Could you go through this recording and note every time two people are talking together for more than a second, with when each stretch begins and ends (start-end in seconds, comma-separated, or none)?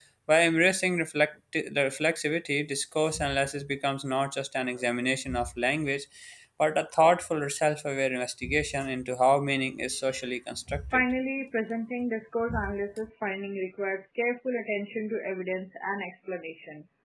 none